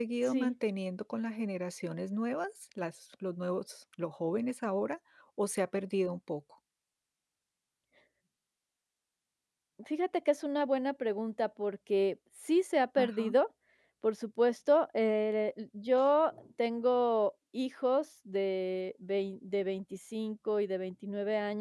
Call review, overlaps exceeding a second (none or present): none